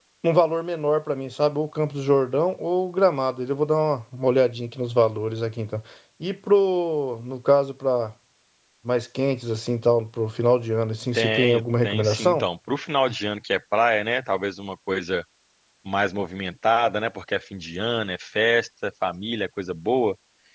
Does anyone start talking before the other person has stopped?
Yes, from 11.1 s

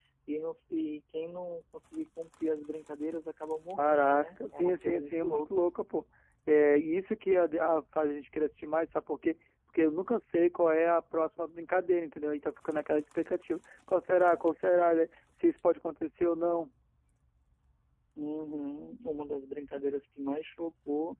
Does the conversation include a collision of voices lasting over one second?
Yes, from 3.8 s

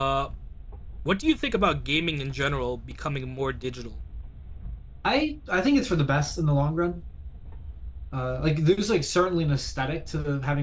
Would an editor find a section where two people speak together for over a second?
No

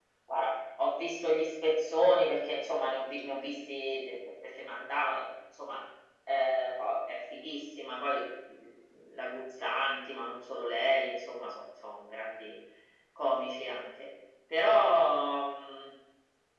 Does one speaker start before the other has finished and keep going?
No

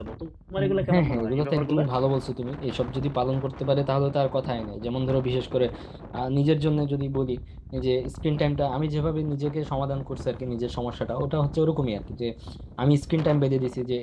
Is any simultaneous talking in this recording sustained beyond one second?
Yes, from 0.6 s

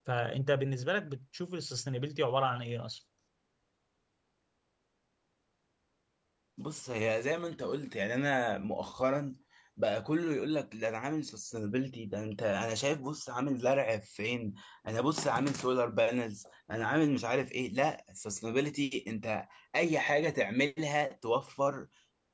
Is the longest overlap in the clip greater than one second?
No

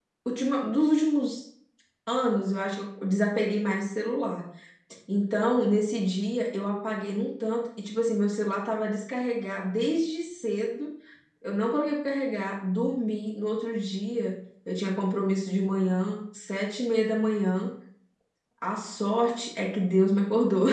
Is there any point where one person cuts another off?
No

